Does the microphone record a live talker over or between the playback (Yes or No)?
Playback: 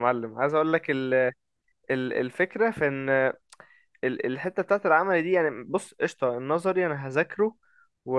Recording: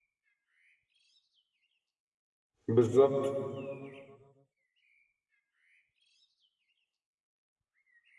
Yes